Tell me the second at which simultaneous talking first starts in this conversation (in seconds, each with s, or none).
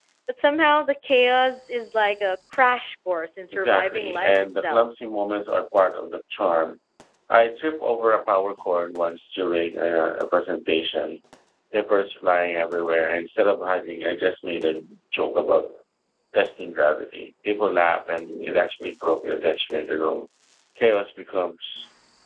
3.5 s